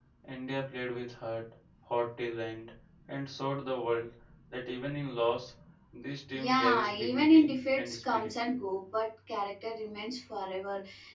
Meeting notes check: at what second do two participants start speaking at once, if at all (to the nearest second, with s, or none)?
6 s